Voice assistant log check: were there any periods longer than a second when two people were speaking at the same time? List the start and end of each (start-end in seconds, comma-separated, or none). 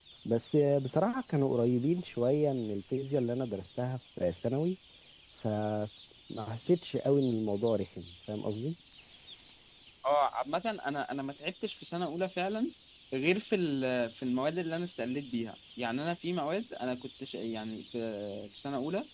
none